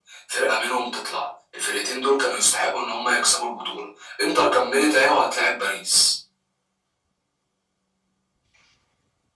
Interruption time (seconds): none

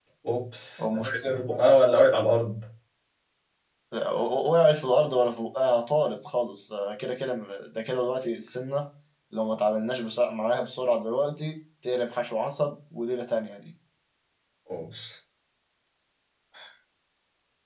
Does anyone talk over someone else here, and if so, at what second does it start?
0.8 s

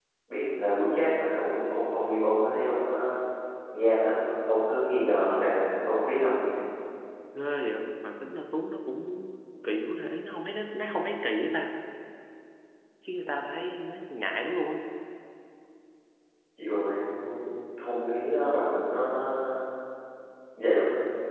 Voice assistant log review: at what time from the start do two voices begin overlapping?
none

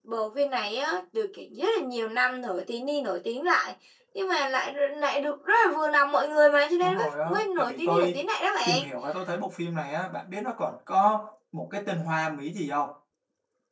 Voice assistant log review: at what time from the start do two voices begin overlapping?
6.8 s

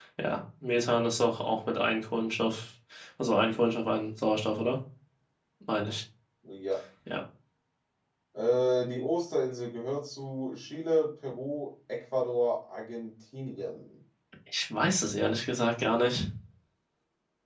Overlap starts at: none

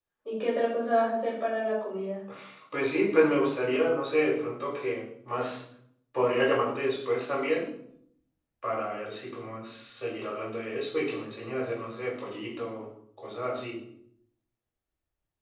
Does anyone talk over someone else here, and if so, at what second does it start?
none

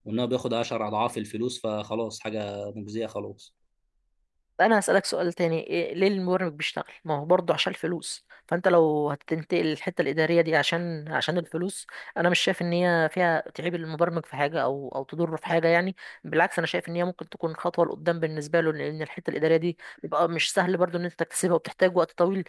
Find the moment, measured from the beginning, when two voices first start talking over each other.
none

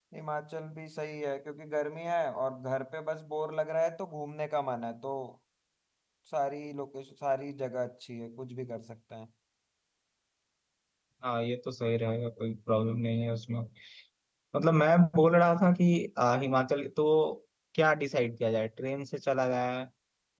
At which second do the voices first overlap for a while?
none

